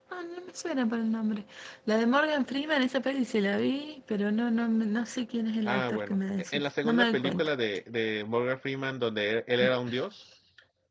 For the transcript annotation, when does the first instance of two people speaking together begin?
5.6 s

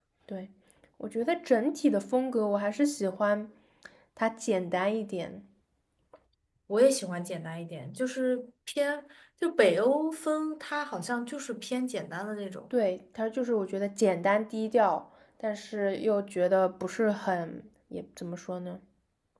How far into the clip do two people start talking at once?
none

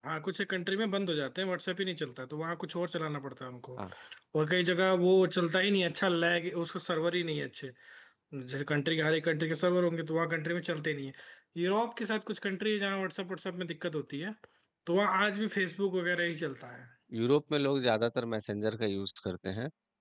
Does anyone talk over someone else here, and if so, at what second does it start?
none

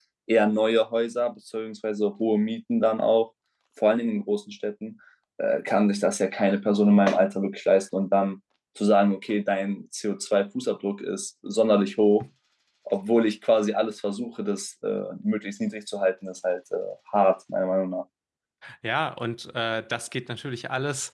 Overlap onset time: none

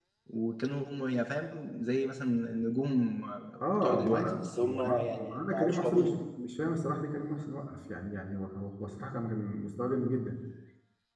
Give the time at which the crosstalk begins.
3.7 s

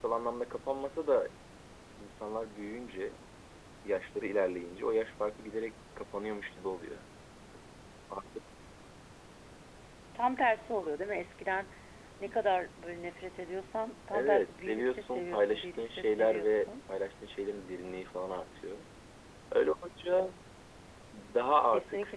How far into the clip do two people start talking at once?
14.1 s

